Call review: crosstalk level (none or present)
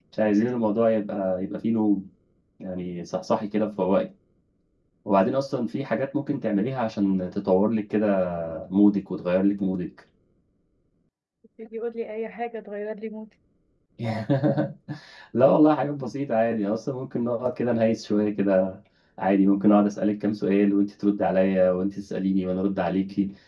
none